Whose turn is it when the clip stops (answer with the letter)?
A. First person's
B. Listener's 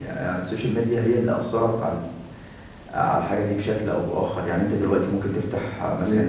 A